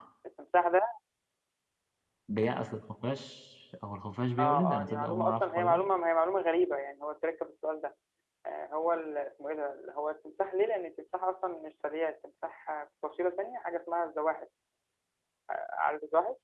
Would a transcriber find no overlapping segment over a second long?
No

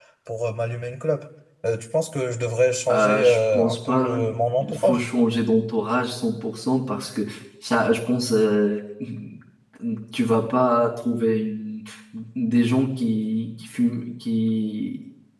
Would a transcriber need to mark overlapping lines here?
Yes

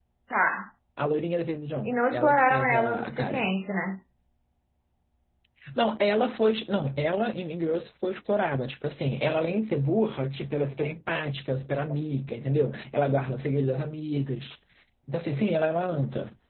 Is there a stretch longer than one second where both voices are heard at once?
Yes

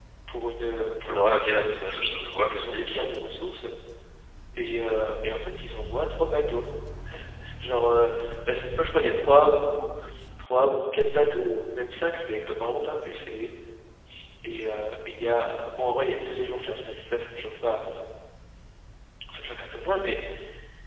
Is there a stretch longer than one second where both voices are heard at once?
Yes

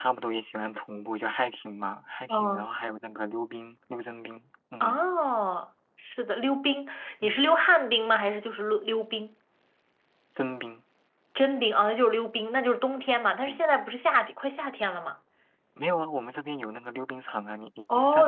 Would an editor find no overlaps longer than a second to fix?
Yes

